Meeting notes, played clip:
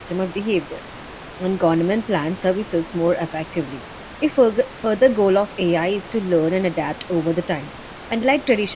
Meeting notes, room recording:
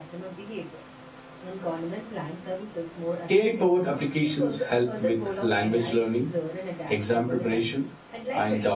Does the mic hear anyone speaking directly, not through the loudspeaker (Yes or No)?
Yes